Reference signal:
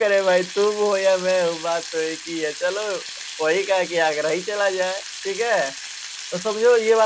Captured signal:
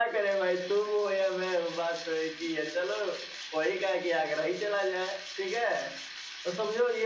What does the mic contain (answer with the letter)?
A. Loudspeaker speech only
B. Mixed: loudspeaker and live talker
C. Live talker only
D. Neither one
A